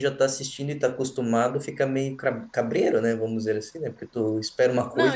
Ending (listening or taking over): taking over